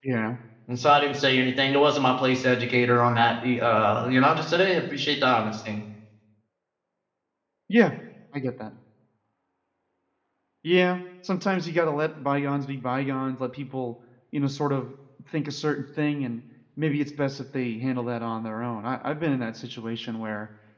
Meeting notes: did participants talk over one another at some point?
No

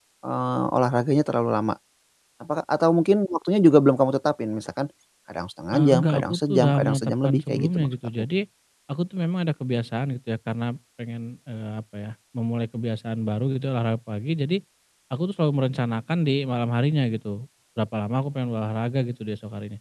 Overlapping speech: Yes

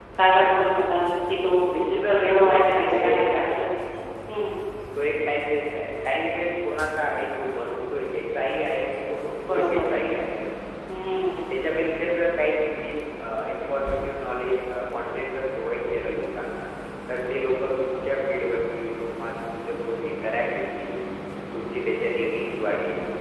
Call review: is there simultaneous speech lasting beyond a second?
Yes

